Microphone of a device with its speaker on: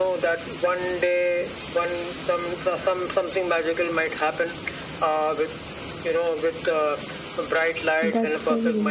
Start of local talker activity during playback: 8.0 s

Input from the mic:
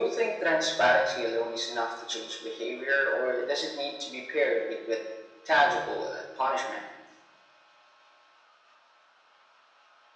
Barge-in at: none

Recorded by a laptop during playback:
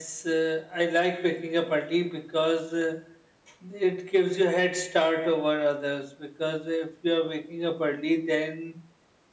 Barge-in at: none

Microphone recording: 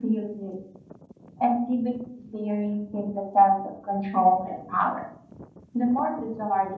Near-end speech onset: none

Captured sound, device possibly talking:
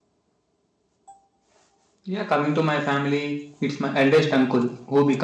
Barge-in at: 2.0 s

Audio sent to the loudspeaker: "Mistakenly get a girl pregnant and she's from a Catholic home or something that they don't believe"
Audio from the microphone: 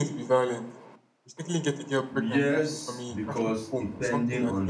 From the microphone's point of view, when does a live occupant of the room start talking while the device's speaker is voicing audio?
2.1 s

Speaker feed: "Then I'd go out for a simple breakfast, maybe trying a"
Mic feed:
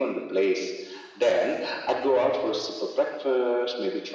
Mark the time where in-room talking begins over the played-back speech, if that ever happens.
none

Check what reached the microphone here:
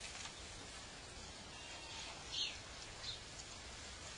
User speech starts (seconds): none

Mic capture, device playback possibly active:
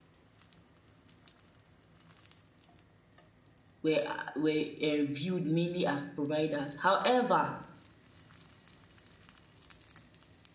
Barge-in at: 3.8 s

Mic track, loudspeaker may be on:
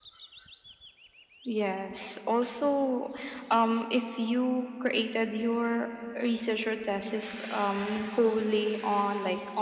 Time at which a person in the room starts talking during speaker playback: none

